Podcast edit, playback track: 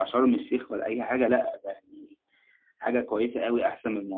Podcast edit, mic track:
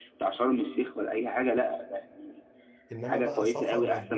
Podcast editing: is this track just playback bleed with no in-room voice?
No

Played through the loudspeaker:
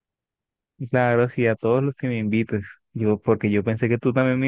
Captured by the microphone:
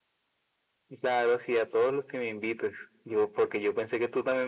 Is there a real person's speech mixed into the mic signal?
No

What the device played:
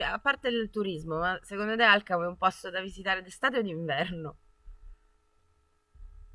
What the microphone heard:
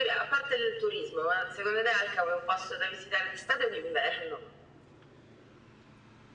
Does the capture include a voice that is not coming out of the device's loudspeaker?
No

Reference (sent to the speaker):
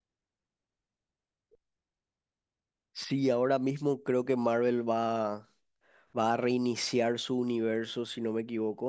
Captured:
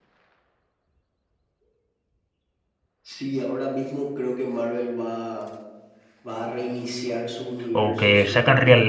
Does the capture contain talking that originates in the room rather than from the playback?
Yes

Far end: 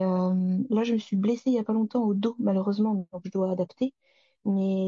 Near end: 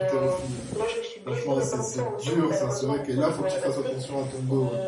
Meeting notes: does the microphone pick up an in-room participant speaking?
Yes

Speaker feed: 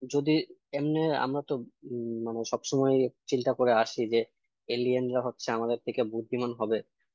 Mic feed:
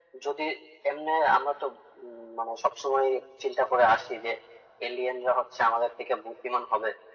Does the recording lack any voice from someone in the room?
Yes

